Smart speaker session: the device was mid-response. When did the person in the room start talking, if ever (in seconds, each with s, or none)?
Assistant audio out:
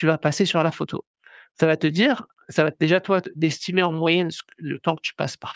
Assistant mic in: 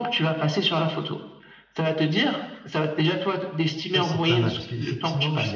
4.0 s